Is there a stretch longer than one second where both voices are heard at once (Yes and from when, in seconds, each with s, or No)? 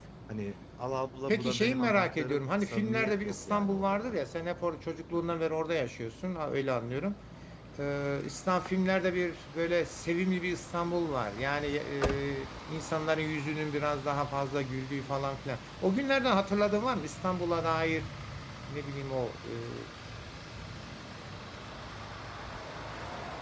Yes, from 1.3 s